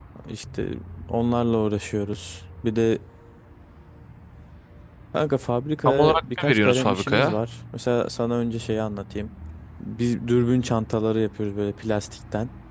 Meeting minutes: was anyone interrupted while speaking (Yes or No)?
Yes